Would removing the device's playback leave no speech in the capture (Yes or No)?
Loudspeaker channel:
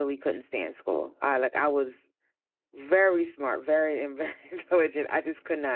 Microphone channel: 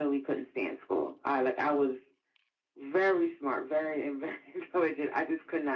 Yes